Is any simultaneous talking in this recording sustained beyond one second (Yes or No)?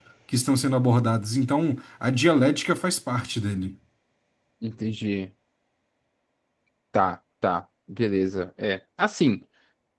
No